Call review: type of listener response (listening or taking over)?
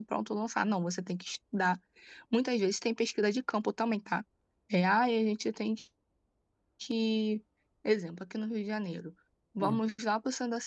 listening